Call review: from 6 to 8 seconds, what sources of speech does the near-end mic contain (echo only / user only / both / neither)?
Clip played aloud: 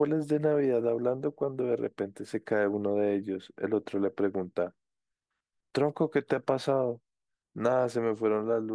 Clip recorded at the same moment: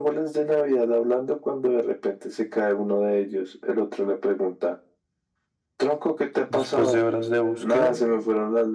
both